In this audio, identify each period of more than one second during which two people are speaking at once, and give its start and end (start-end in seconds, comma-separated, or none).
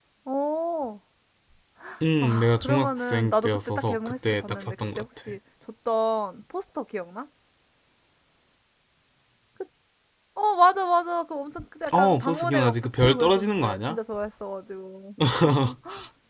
2.2-5.4, 11.9-14.0